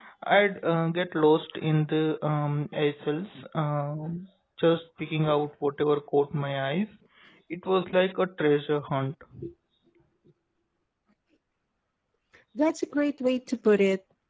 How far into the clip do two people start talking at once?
none

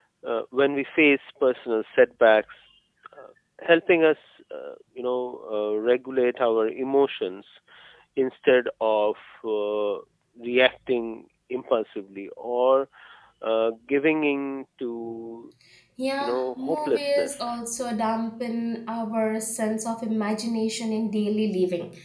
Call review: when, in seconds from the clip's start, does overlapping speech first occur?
16.2 s

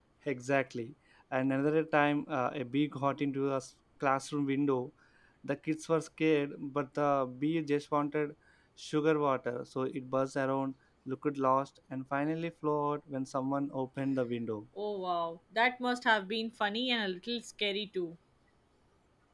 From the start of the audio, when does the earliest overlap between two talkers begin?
none

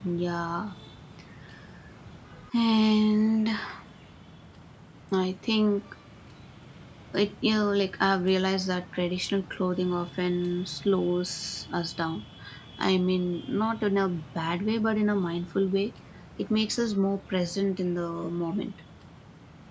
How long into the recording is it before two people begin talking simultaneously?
none

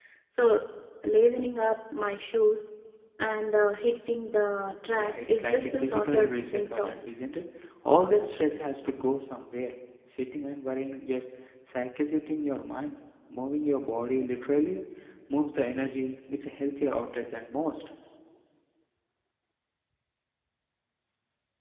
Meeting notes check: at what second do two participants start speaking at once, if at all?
4.8 s

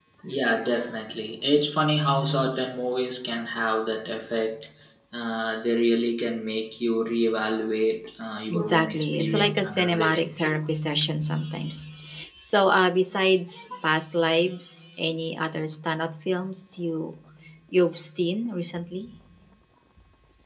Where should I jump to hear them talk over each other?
8.5 s

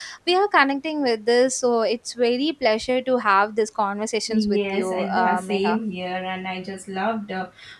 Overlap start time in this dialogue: 4.3 s

